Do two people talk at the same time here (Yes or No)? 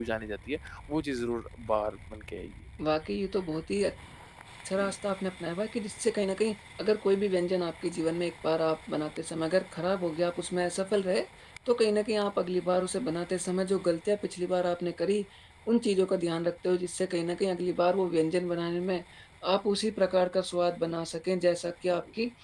No